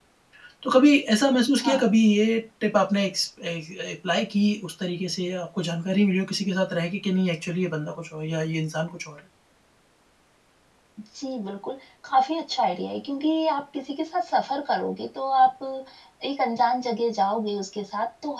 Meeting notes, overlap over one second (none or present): none